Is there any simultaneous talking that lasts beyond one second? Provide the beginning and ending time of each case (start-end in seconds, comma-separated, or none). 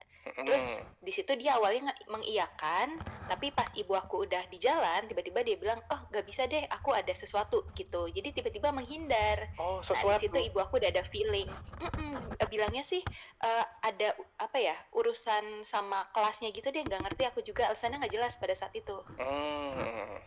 none